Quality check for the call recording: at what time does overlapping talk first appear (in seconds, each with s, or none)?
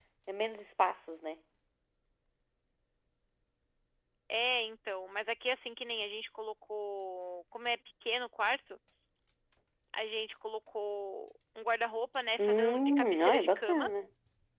12.4 s